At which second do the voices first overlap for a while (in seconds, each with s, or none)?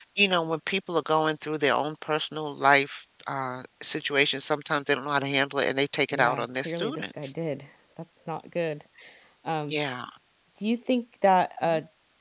6.1 s